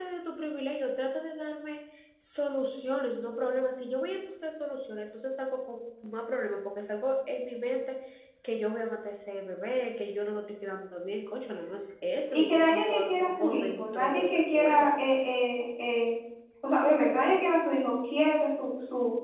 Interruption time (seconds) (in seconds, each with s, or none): 12.3 s